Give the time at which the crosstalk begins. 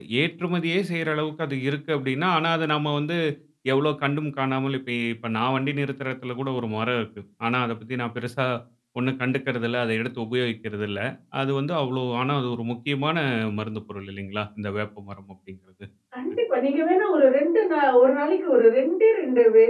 none

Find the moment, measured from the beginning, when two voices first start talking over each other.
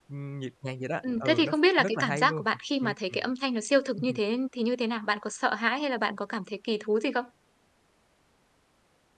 1 s

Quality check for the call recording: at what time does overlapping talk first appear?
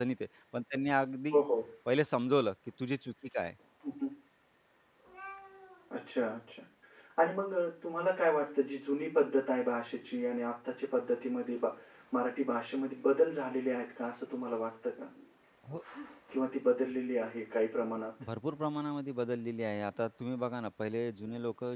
none

